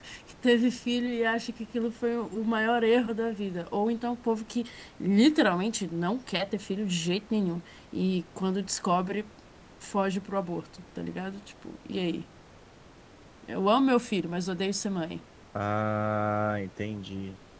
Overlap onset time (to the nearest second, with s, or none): none